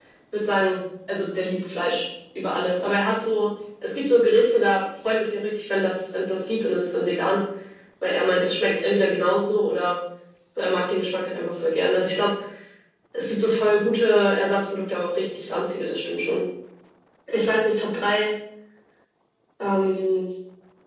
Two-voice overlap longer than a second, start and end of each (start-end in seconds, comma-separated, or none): none